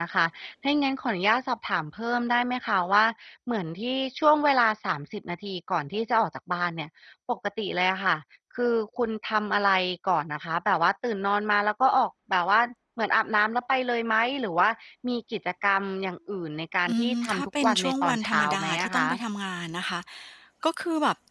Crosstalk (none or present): present